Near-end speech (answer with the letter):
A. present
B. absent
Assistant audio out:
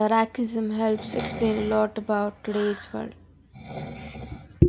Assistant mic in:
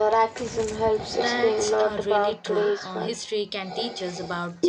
A